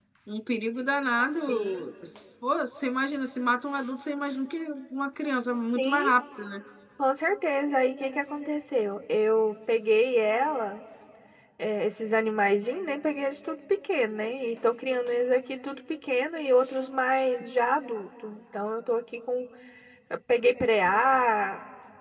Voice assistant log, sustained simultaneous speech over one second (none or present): none